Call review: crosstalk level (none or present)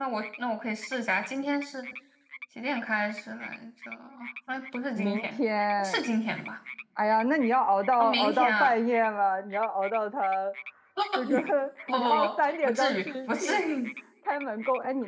present